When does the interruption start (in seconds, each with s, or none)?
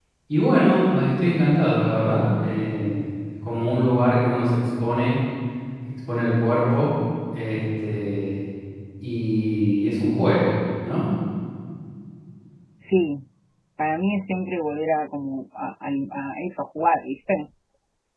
none